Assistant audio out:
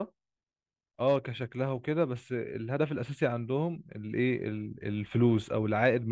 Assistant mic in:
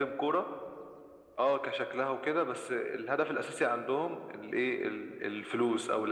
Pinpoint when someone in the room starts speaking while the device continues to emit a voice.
none

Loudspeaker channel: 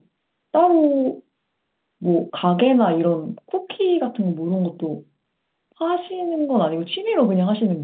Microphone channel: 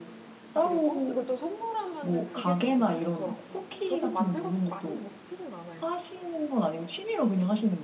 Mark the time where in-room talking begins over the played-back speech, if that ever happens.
0.6 s

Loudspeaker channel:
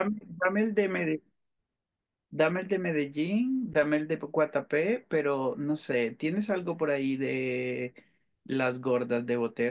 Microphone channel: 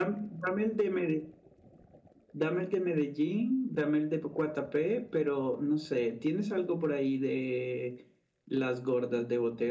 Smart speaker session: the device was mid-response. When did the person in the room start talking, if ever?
none

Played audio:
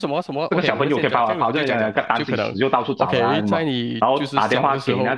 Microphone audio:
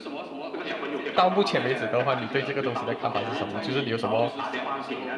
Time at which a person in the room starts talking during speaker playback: 1.1 s

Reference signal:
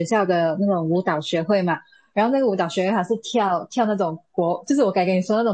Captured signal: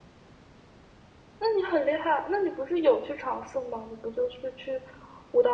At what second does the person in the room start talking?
1.4 s

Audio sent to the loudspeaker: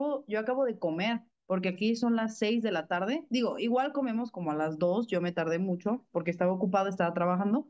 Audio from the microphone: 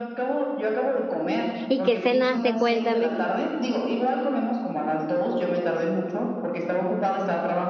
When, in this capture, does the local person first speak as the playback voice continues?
1.7 s

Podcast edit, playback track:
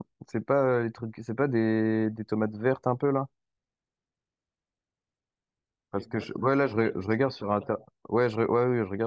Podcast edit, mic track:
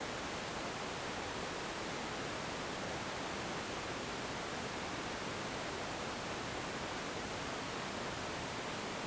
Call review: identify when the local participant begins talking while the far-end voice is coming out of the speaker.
none

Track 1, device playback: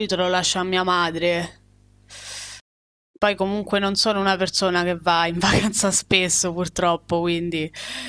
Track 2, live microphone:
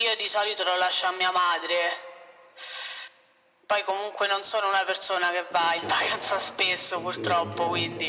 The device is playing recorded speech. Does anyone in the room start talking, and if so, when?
5.5 s

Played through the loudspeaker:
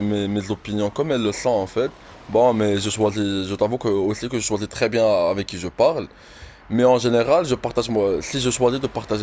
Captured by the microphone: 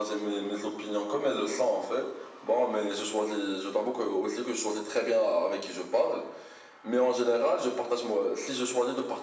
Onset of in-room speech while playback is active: none

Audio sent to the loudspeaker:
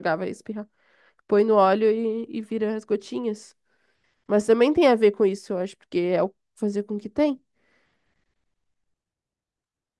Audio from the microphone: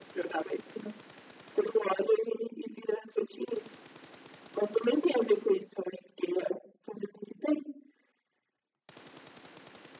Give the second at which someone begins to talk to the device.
none

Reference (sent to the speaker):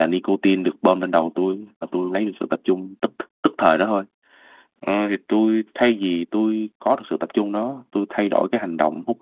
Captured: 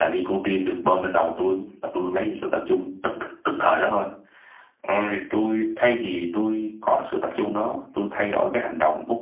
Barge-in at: none

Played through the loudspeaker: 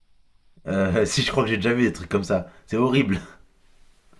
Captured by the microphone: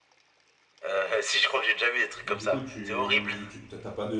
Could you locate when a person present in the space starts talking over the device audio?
2.2 s

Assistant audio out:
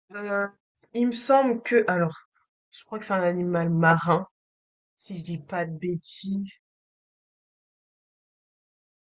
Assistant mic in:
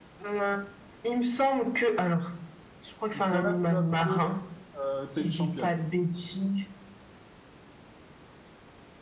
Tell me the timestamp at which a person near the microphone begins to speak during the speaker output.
3.0 s

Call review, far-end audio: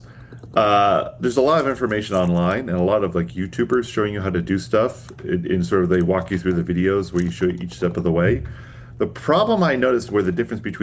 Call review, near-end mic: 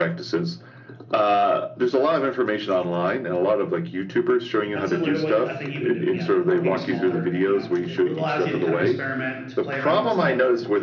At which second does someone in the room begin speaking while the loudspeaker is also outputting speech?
4.7 s

